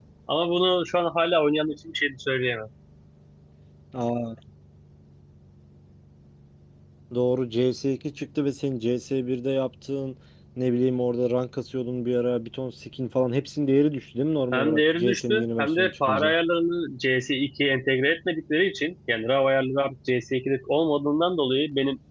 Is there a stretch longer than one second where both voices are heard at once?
Yes, from 14.5 s

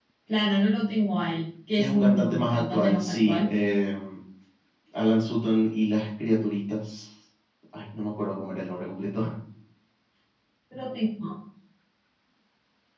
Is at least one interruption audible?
Yes, from 1.8 s

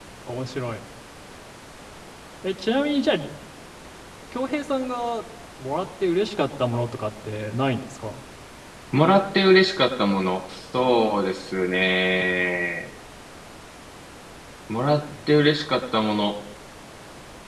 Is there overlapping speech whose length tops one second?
No

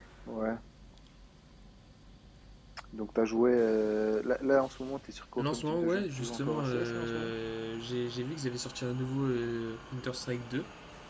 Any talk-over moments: Yes, from 5.4 s

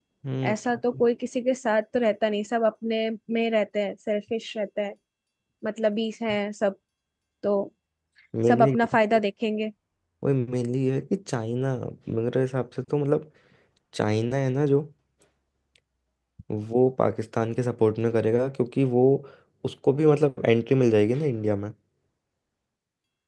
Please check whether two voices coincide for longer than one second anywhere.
No

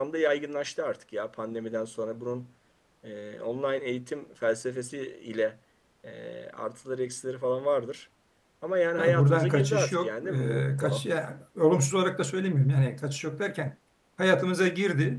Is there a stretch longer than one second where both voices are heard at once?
Yes, from 9.0 s

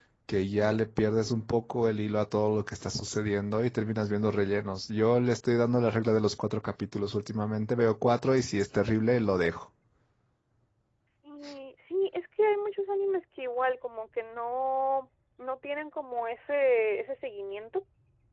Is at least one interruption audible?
No

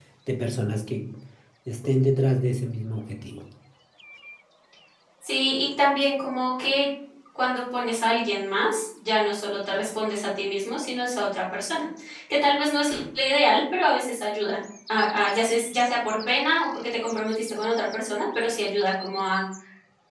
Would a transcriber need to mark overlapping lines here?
No

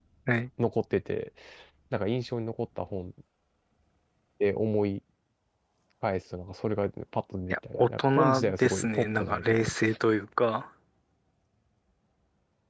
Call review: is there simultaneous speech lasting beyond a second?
Yes, from 7.5 s

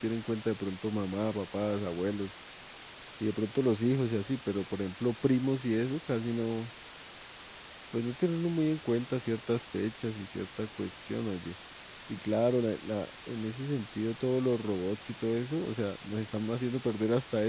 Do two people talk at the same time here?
No

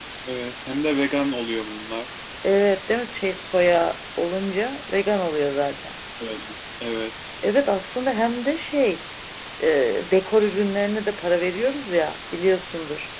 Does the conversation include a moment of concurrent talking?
No

